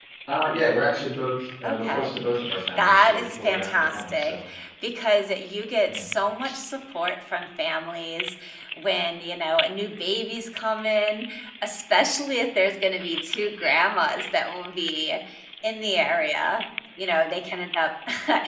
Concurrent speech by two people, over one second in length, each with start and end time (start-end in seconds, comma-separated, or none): 2.8-4.3